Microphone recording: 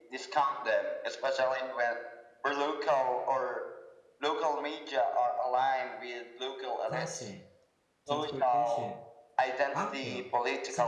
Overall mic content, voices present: both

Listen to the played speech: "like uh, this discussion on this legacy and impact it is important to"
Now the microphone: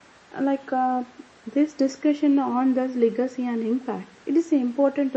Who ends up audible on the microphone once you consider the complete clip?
echo only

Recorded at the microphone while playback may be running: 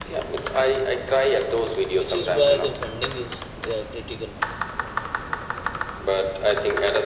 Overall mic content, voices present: both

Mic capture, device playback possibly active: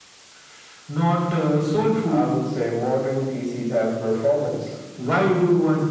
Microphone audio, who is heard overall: echo only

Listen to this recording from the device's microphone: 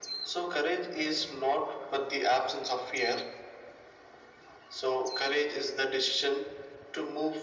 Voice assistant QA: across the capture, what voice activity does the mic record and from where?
echo only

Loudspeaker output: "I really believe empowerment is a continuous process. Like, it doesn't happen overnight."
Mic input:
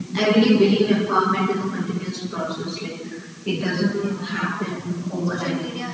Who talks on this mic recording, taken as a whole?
both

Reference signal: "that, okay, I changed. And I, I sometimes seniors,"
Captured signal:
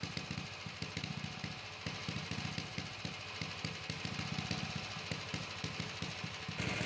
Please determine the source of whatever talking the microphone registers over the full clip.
neither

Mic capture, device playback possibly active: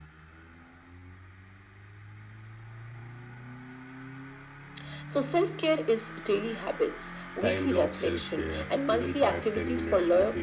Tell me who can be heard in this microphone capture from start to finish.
both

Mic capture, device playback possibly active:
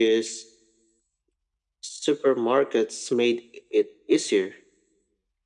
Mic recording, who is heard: echo only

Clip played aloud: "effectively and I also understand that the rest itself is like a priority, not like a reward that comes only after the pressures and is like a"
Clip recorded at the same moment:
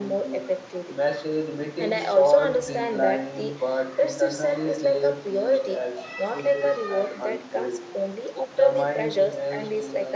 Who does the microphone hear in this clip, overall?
both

